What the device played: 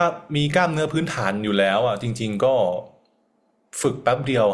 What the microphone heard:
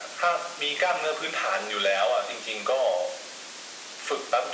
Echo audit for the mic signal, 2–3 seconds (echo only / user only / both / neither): echo only